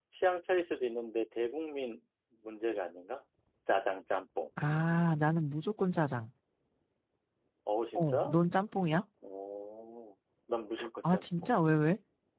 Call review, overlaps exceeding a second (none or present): none